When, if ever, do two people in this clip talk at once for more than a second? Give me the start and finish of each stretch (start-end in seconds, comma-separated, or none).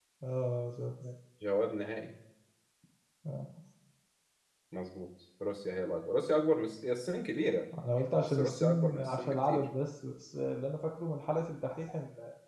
8.2-9.7